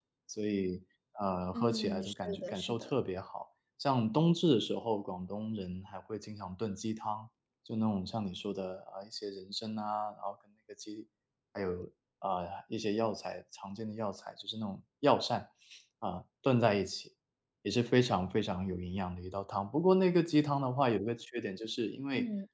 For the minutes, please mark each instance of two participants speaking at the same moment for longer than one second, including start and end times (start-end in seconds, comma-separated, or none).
1.5-2.9